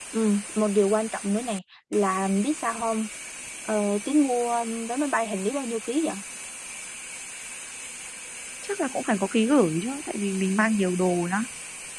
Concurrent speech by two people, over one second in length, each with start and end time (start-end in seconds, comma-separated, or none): none